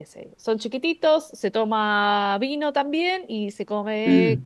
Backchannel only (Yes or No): Yes